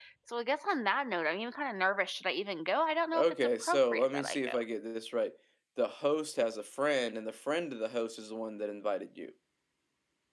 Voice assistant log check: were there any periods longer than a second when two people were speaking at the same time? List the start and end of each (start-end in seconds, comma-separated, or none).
3.1-4.5